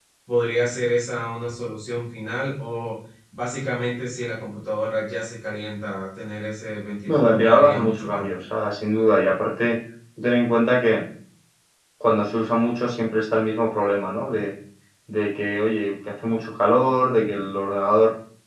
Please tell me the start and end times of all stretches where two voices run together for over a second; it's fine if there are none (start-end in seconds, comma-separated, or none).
7.1-8.5